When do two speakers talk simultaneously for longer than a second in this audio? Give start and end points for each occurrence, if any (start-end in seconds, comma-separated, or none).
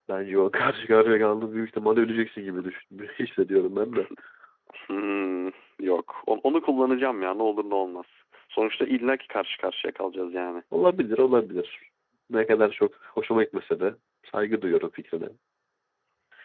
none